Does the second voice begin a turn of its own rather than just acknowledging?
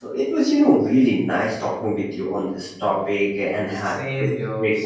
Yes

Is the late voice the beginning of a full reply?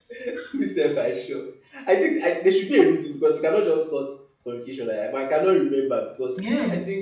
No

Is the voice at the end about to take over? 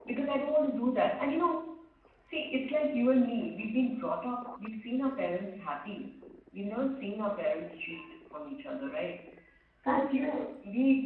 No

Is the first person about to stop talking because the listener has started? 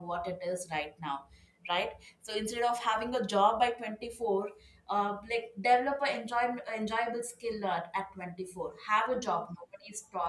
No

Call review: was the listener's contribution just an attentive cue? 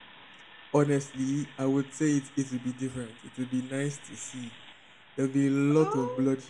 Yes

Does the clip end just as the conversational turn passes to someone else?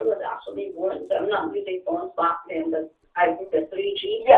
Yes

